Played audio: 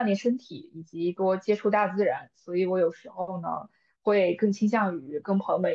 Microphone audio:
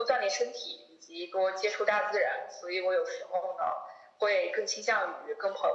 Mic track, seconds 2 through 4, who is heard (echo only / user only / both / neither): echo only